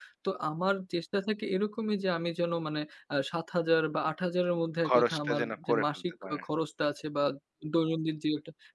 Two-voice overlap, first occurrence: 4.8 s

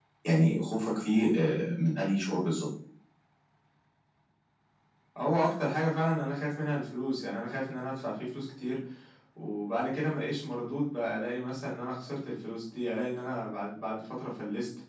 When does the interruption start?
none

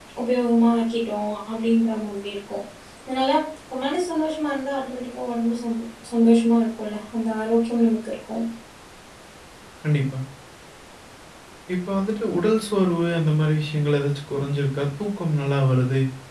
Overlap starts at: none

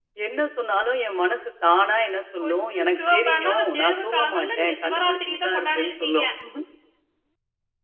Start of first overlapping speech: 2.4 s

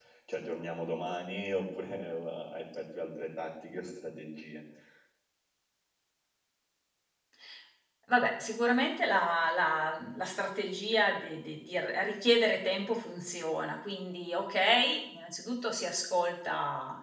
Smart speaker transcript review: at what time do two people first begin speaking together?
none

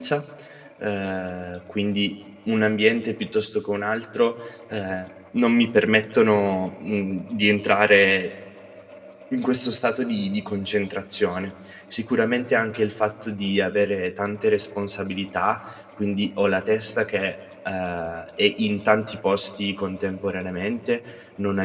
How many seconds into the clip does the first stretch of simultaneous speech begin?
none

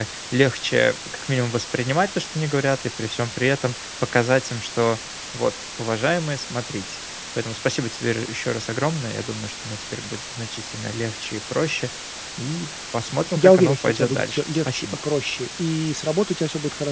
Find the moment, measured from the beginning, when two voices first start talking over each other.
13.3 s

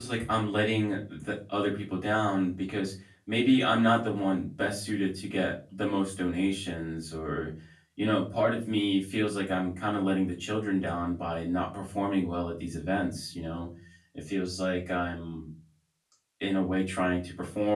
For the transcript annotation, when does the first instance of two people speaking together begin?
none

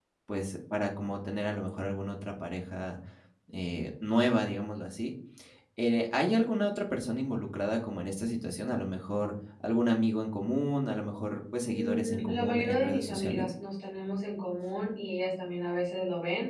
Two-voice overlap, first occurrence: 11.7 s

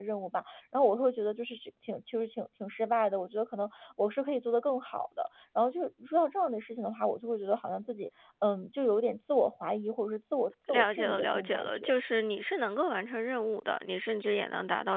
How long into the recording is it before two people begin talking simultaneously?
10.7 s

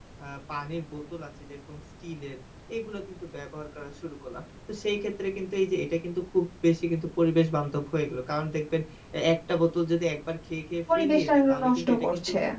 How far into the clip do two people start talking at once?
10.9 s

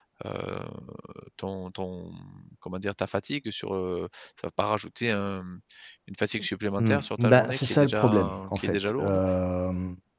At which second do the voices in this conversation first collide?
6.8 s

